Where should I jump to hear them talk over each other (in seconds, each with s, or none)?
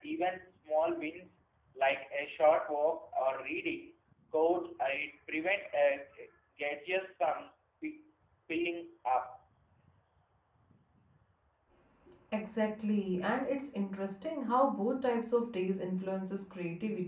none